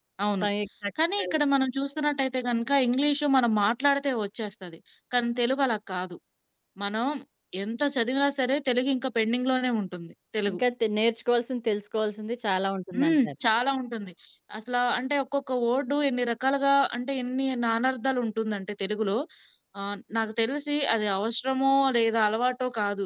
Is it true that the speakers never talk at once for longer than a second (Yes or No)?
Yes